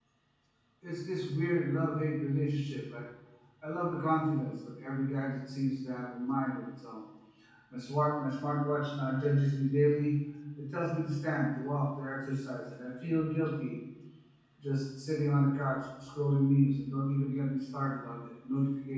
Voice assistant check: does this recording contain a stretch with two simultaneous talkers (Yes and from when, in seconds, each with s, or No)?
No